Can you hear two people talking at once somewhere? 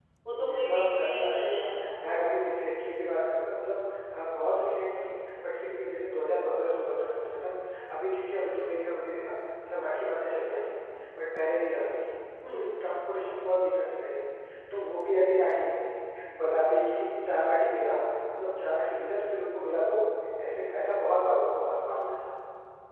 Yes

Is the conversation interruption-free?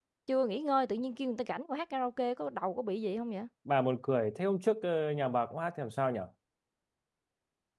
Yes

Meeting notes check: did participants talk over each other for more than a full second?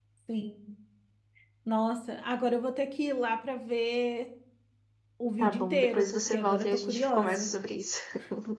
Yes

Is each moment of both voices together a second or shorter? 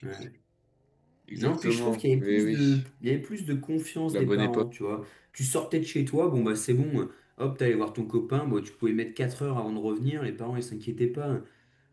No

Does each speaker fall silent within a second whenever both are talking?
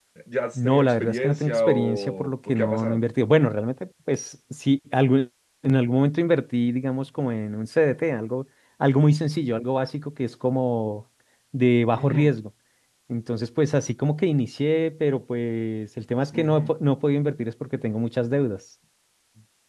No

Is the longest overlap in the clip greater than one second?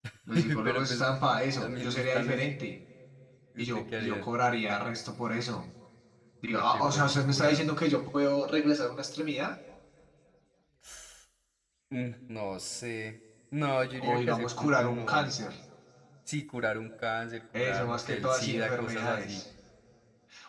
Yes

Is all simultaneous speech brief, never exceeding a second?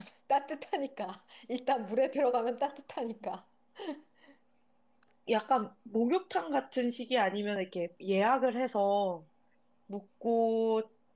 Yes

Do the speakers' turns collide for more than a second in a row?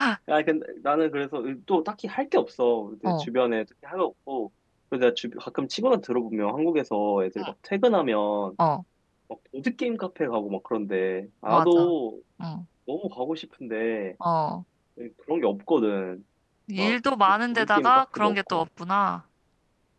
Yes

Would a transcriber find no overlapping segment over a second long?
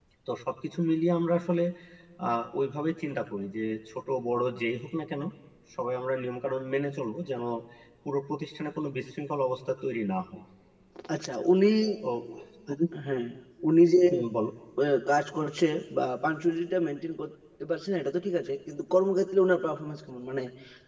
Yes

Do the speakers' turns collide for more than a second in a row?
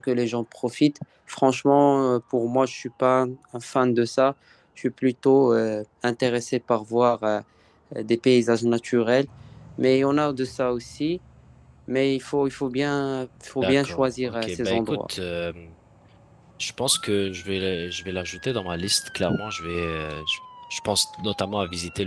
Yes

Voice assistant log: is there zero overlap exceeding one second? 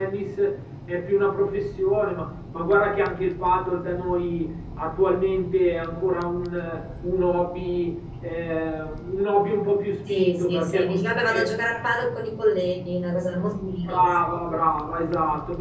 No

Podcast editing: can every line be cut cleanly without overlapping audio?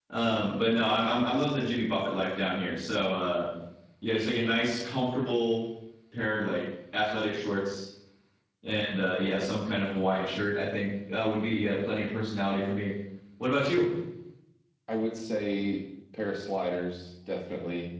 Yes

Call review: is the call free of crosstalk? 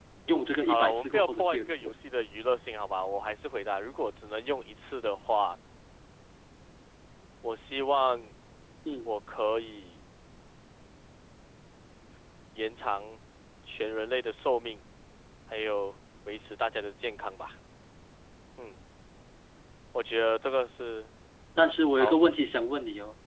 No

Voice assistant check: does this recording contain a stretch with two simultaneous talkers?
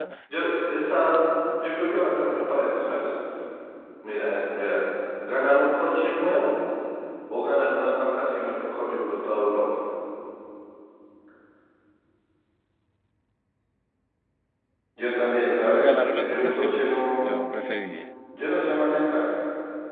Yes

